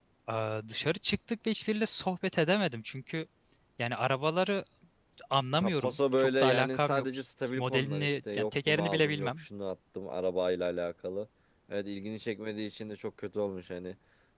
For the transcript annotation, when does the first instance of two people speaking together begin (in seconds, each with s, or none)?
5.6 s